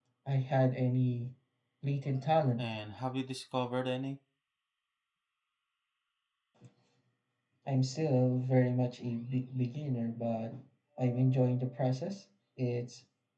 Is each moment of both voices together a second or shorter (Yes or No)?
Yes